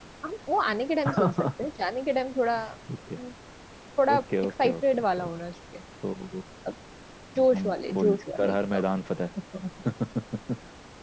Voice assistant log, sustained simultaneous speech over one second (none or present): present